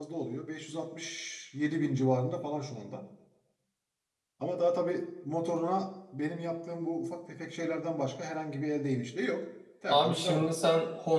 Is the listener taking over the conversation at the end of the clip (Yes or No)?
Yes